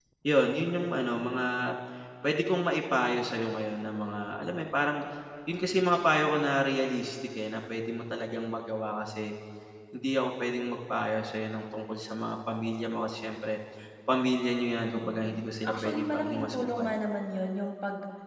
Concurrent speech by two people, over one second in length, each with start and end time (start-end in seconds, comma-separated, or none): 15.7-17.0